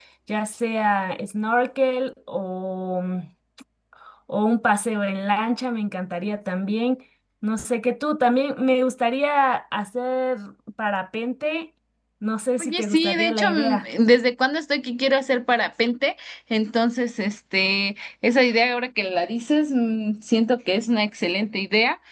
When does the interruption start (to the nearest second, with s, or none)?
13 s